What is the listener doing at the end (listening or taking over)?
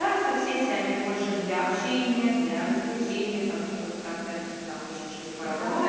taking over